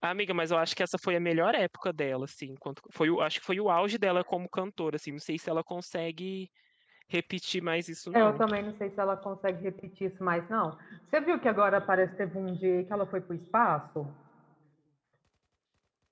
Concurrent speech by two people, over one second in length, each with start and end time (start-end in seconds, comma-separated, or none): none